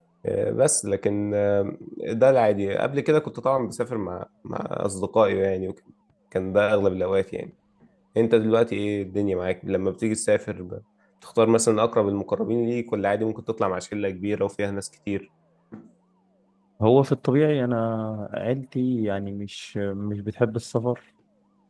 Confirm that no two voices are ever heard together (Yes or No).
Yes